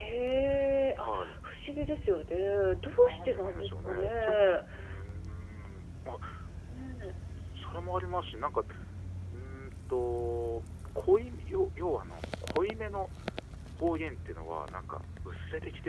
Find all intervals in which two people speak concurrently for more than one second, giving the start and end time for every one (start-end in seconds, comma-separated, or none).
2.9-4.4